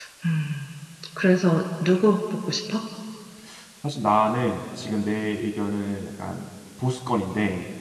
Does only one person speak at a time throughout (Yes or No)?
Yes